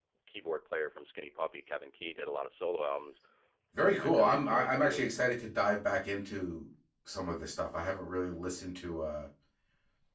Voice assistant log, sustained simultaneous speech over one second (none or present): present